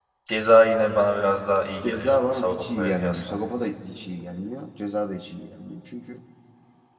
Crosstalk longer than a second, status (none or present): present